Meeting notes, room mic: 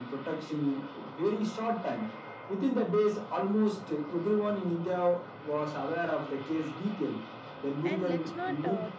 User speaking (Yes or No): Yes